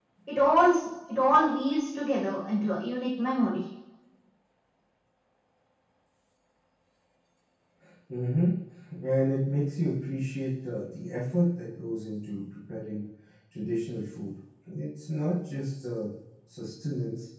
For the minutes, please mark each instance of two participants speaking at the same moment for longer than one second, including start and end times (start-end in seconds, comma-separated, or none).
none